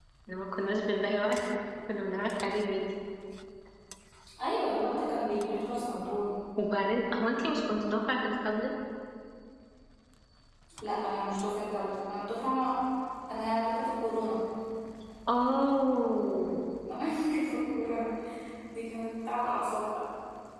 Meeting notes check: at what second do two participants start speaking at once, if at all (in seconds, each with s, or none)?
none